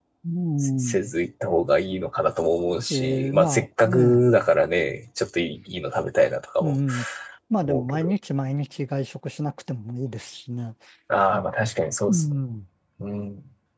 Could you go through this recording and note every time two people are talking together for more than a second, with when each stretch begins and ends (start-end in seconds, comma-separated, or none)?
2.9-4.2